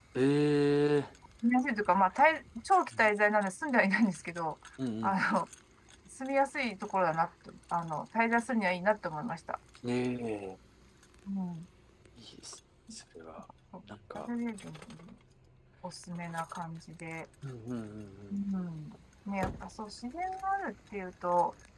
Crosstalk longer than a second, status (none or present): none